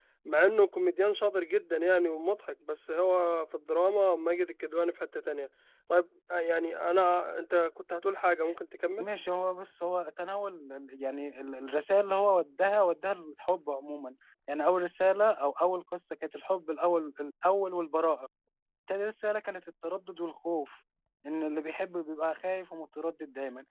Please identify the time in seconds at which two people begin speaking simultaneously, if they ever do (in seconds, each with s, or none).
none